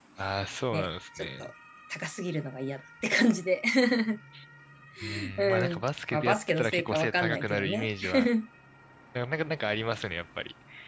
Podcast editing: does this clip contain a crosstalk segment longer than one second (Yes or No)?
Yes